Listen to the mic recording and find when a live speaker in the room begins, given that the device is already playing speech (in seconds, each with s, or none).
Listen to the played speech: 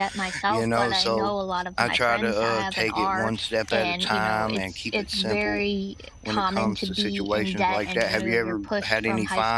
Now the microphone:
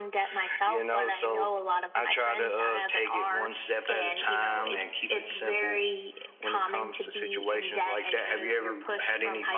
none